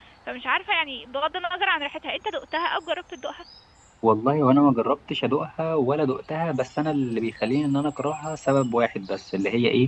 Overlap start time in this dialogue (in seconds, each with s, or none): none